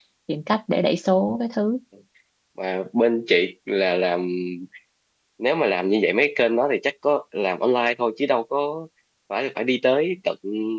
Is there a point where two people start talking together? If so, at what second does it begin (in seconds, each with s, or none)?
none